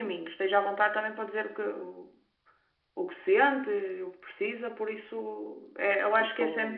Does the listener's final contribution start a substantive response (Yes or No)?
No